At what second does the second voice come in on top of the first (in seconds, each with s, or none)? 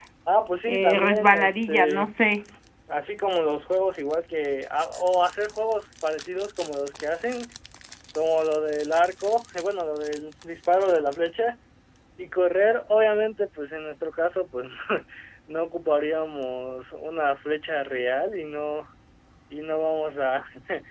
0.7 s